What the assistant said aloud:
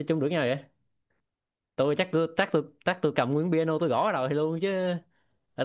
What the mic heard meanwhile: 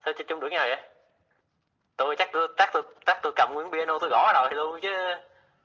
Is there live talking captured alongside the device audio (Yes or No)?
No